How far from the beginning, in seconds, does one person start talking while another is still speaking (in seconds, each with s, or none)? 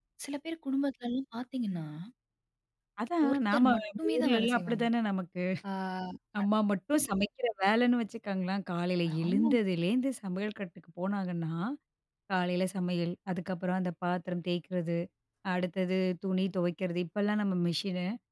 3.3 s